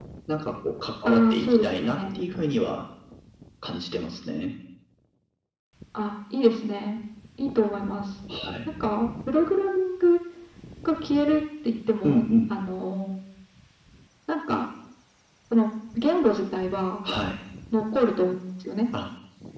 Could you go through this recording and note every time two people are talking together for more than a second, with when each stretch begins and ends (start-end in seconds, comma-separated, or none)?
1.1-2.2